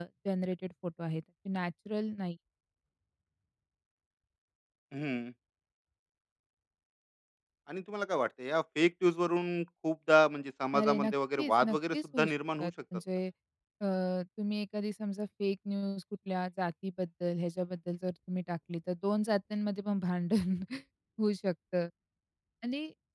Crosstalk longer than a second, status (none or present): present